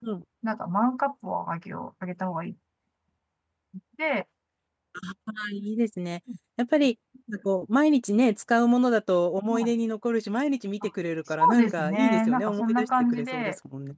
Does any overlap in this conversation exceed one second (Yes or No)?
Yes